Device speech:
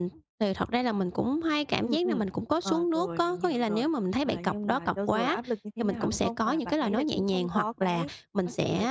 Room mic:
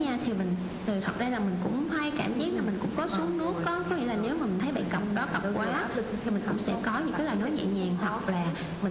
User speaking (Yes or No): No